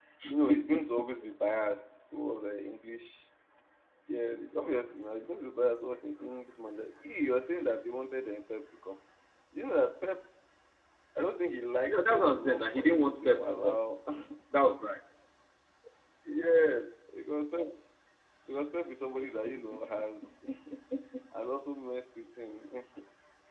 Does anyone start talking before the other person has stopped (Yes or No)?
Yes